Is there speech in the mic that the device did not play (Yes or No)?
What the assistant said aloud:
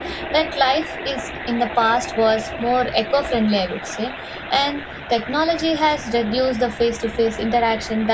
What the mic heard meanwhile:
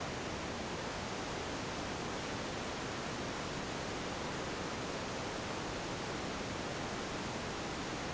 No